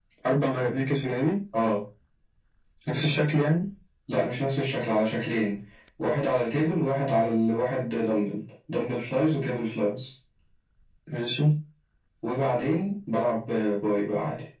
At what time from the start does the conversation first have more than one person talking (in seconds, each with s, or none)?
none